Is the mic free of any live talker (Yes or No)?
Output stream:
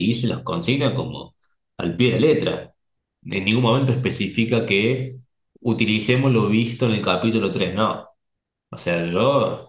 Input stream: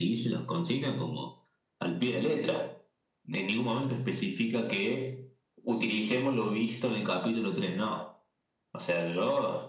Yes